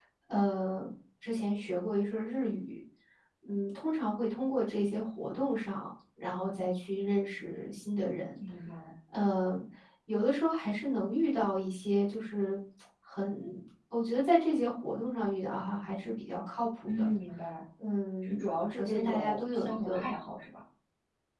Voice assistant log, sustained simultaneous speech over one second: present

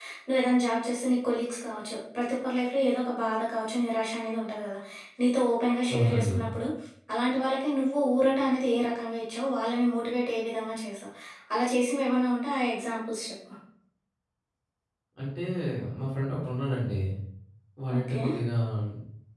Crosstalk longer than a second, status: none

